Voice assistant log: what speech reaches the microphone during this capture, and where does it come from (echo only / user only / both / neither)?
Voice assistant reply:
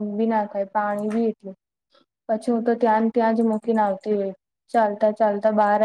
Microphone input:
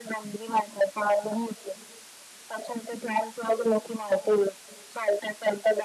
echo only